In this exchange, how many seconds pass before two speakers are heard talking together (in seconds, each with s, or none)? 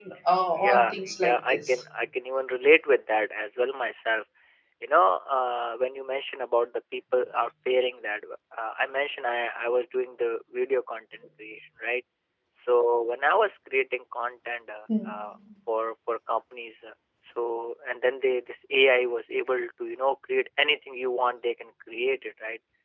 0.6 s